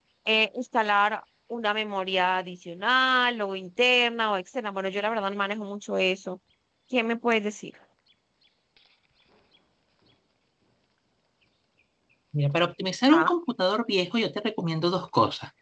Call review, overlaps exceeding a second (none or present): none